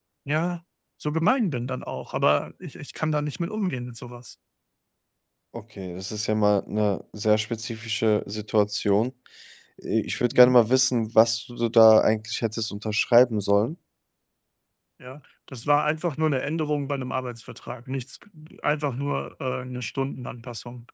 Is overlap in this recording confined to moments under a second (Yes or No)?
Yes